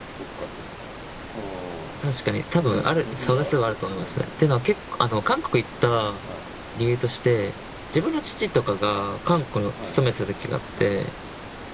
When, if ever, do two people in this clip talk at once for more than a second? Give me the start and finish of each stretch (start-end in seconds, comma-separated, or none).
2.7-4.2